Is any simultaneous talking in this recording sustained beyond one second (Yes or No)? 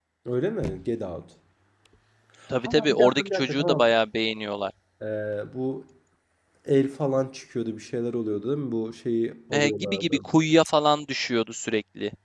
Yes